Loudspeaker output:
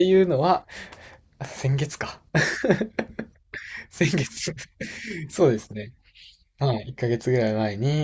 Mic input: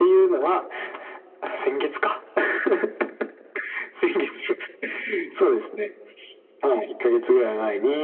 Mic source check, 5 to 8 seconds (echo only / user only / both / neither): echo only